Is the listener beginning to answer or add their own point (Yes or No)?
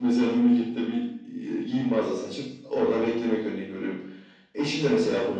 No